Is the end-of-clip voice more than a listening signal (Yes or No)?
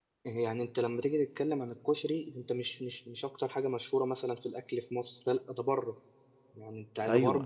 No